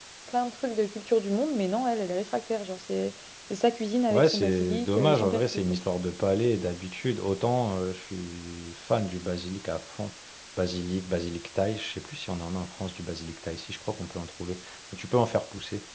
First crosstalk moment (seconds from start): 4.1 s

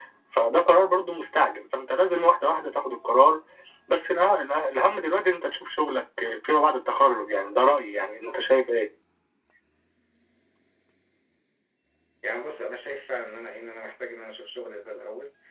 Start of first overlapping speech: none

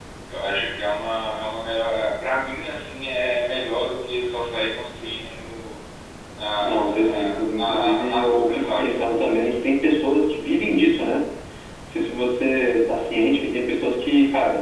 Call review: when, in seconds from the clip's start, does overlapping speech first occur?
6.6 s

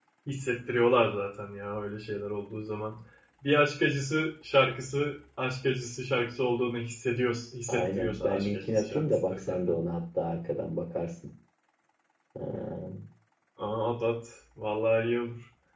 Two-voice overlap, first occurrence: 7.7 s

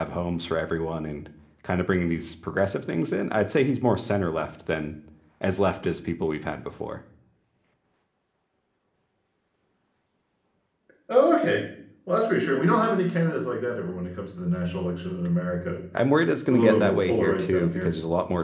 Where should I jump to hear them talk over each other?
16.5 s

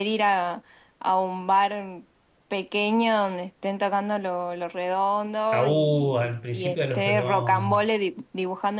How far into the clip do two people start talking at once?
5.5 s

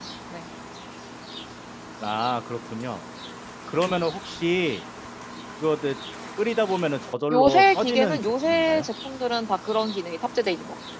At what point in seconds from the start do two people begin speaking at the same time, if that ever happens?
7.3 s

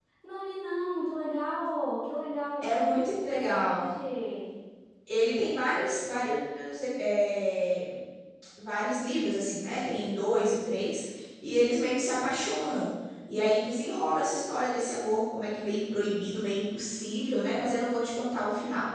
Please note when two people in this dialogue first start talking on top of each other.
2.6 s

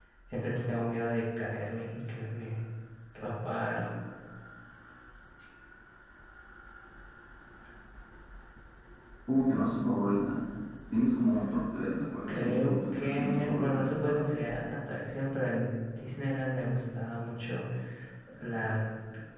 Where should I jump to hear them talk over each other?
12.3 s

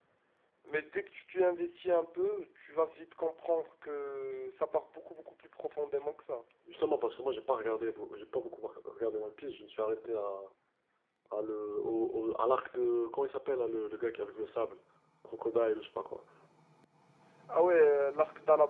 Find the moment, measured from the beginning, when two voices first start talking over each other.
none

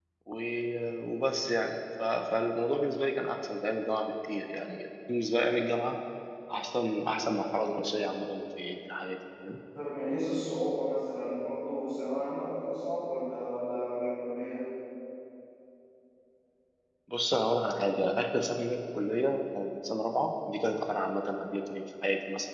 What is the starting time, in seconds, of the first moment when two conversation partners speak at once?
none

